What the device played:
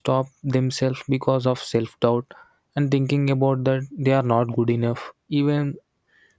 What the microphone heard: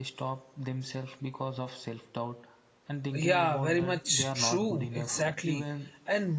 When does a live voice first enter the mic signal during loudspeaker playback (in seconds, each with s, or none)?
3.1 s